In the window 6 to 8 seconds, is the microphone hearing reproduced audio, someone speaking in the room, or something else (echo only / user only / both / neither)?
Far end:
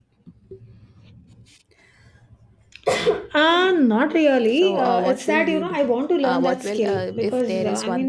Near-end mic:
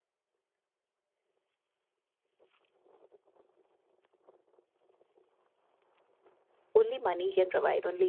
user only